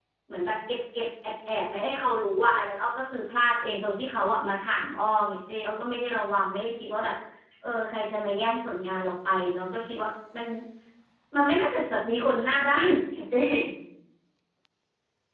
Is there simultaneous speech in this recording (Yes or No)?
No